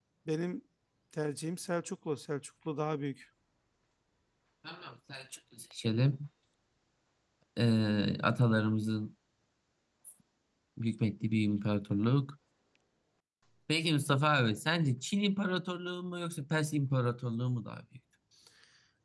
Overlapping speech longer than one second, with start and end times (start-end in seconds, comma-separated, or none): none